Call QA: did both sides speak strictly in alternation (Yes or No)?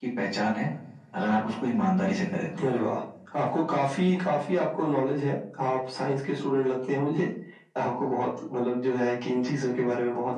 Yes